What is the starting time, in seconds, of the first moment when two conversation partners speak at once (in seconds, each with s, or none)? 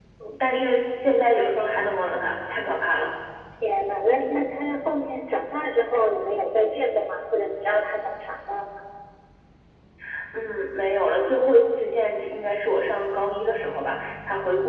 none